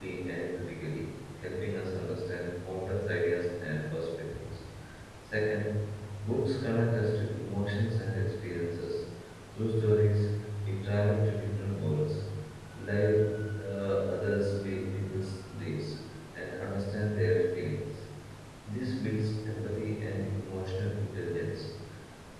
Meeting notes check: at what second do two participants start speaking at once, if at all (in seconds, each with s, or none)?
none